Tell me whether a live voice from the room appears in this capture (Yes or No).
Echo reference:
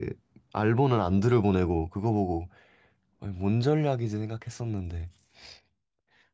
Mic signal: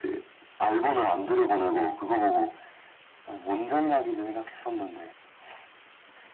No